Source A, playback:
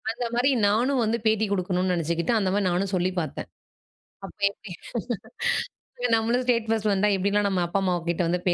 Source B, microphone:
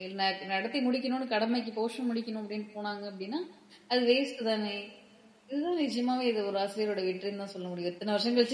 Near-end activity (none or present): present